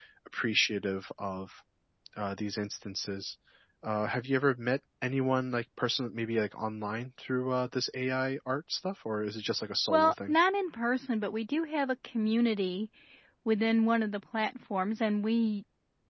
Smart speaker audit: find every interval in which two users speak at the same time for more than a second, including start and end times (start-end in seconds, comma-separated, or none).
none